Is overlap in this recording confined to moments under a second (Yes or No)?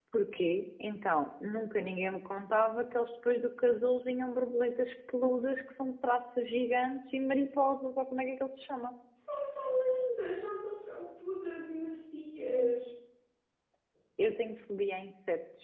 Yes